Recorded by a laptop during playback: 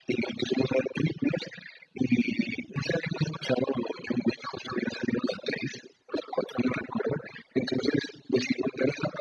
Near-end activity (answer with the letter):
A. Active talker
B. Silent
B